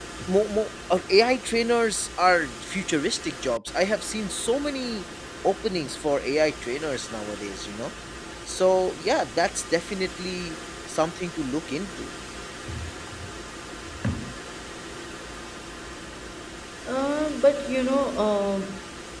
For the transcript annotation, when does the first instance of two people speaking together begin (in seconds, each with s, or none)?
none